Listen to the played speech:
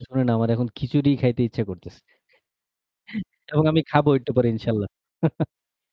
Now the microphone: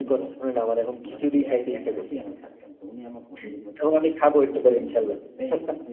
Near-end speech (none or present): present